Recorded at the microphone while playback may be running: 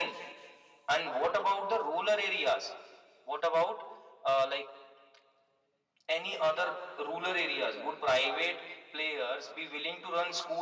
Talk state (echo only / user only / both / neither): echo only